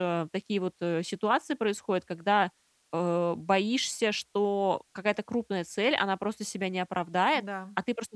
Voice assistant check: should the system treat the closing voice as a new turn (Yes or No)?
No